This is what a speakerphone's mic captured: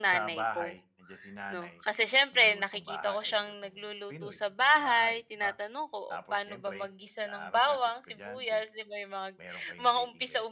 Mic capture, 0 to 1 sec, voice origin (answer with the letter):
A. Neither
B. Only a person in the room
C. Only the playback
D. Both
D